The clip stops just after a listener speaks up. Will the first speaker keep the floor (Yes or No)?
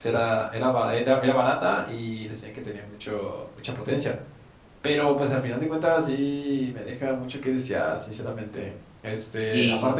Yes